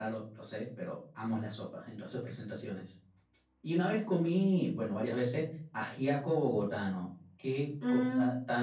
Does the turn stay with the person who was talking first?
Yes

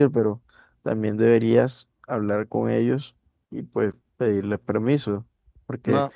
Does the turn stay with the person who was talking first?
Yes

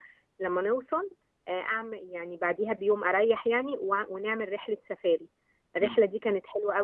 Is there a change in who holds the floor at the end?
No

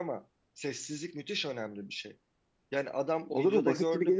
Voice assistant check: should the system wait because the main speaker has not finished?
No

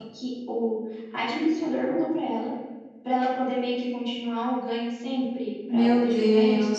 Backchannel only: No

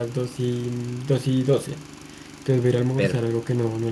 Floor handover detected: No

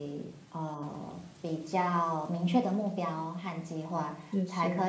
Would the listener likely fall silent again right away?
Yes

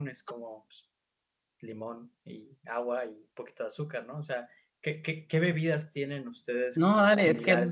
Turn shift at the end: Yes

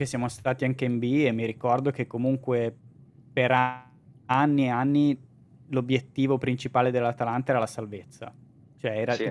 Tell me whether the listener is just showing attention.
Yes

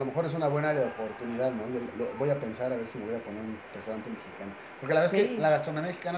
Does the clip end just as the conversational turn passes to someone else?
No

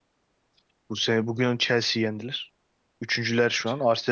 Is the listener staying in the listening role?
Yes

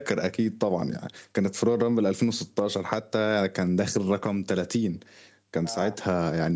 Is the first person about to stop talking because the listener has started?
No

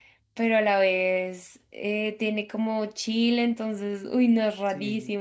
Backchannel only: No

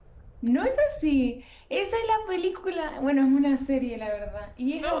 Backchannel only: Yes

